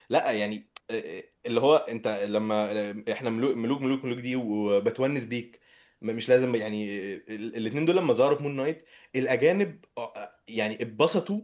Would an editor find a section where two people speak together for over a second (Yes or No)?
No